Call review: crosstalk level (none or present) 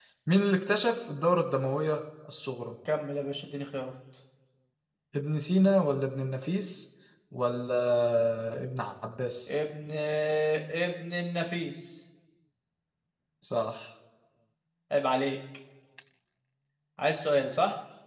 none